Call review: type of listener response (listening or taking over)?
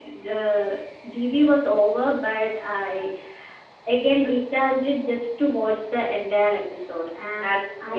listening